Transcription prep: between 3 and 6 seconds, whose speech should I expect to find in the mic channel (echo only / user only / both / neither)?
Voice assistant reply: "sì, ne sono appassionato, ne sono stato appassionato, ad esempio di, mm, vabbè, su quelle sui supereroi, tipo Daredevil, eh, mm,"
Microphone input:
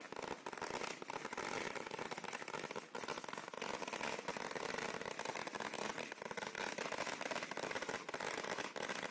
neither